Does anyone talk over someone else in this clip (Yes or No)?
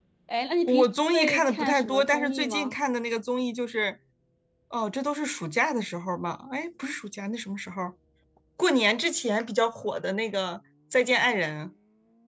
Yes